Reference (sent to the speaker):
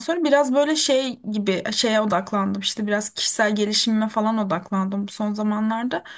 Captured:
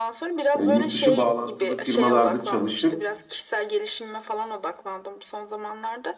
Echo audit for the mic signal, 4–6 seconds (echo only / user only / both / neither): echo only